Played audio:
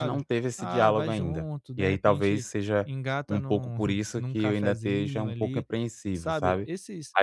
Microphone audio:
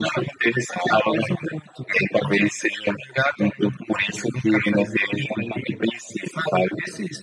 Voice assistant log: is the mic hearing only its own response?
Yes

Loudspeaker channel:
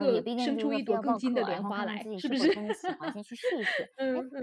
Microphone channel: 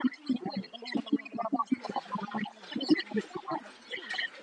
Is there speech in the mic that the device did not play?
No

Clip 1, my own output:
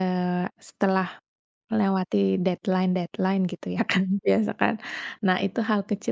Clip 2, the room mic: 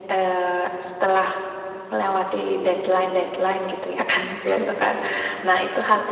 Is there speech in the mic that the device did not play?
No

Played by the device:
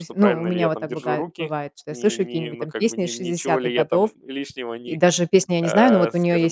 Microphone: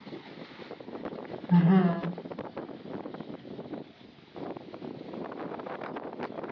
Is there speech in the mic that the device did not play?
Yes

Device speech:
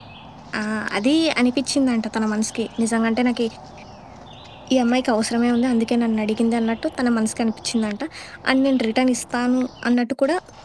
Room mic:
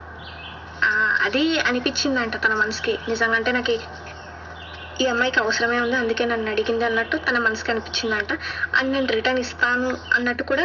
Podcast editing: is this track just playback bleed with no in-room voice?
Yes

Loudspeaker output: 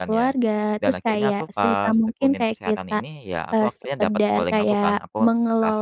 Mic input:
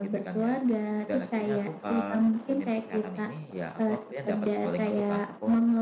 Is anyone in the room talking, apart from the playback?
No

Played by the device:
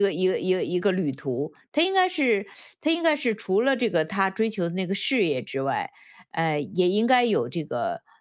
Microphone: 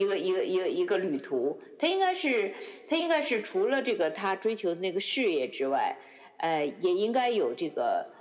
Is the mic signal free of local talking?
Yes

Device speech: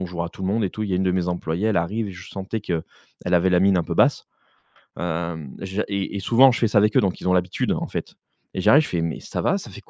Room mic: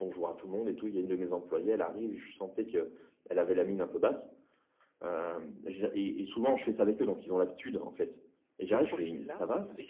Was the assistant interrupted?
Yes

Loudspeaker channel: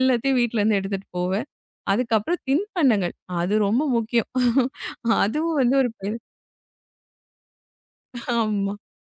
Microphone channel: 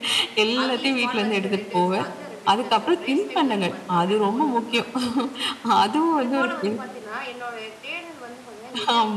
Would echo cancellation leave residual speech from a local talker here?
Yes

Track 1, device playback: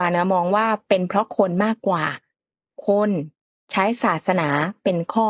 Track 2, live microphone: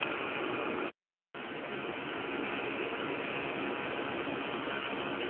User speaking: No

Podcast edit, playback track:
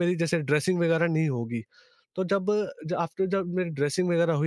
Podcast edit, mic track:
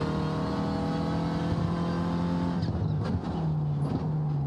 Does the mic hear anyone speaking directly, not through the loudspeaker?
No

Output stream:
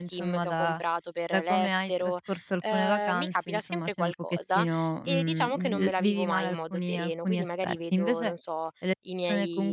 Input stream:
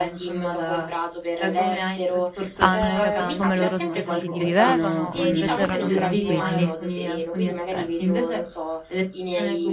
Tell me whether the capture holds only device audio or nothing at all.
No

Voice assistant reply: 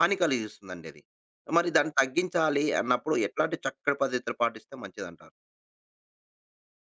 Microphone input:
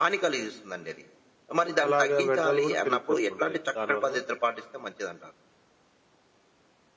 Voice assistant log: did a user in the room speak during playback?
Yes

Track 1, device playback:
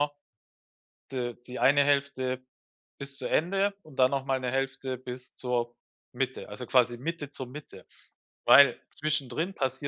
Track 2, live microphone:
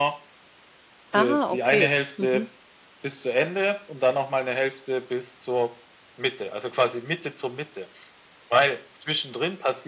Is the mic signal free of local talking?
No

